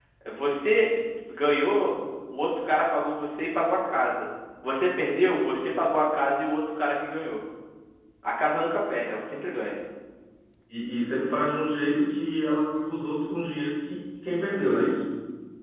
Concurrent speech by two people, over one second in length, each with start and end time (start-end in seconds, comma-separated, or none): none